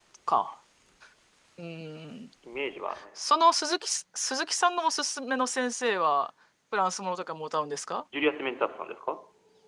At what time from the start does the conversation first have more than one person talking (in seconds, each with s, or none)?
none